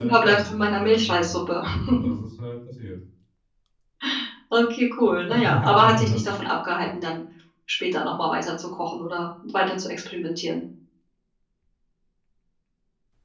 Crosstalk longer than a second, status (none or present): present